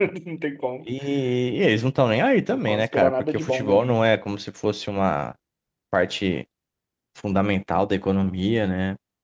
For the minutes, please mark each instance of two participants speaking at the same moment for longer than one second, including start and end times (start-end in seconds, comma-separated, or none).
2.5-4.0